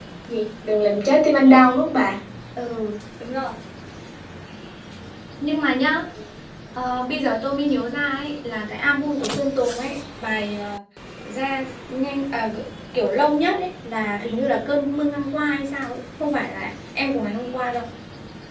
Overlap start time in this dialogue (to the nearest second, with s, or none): none